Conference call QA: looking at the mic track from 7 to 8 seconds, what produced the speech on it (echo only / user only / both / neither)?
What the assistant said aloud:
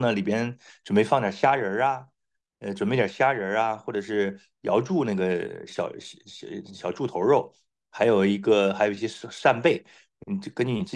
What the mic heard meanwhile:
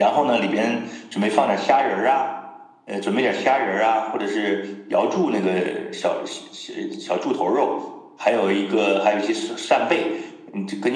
echo only